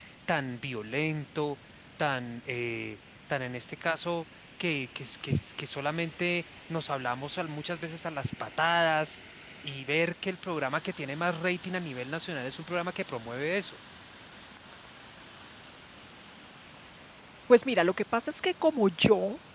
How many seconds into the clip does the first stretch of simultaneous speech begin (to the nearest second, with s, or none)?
none